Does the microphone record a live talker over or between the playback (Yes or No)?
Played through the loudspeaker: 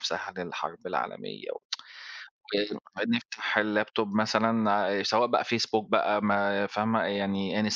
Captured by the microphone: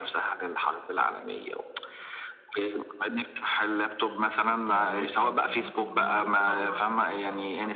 Yes